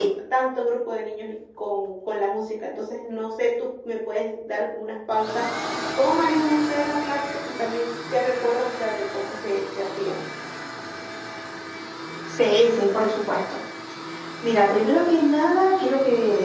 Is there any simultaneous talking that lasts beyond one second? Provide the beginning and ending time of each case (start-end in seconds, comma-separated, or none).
none